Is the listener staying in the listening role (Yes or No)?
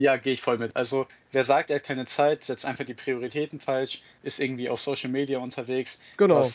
Yes